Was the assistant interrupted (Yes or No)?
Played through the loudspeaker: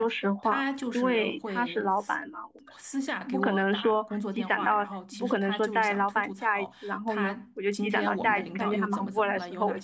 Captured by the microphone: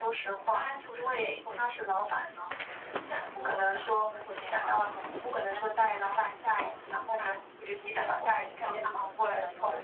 No